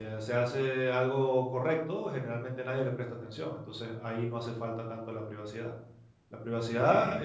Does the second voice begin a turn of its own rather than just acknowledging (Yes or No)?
No